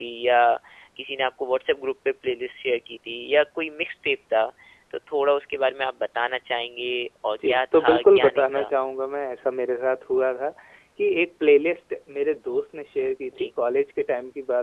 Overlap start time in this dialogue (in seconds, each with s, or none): 7.3 s